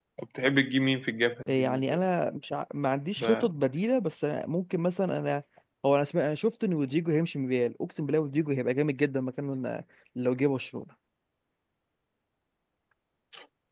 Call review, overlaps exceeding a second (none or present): none